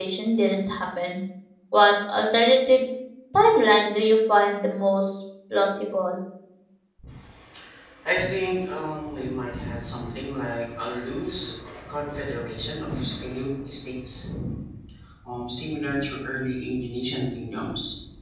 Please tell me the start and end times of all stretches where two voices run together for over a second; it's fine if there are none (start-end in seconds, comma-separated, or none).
none